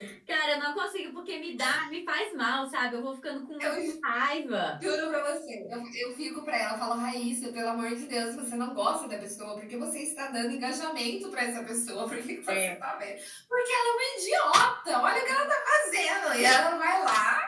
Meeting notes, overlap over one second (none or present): none